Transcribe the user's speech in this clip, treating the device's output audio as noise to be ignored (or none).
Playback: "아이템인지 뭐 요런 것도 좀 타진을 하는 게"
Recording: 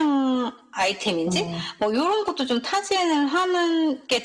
어.